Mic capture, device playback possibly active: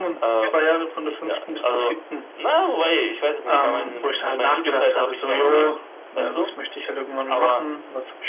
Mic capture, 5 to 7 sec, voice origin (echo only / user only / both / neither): echo only